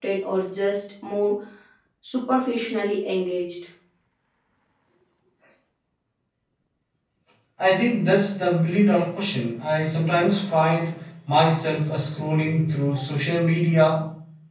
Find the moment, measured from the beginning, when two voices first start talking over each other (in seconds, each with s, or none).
none